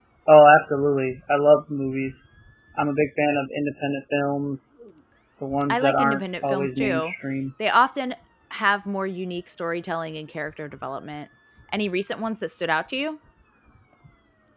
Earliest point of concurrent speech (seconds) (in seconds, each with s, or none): 5.7 s